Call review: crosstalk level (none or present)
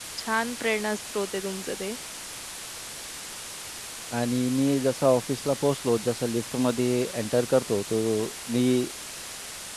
none